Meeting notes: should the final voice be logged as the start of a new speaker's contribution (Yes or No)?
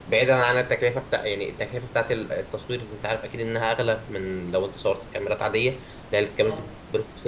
No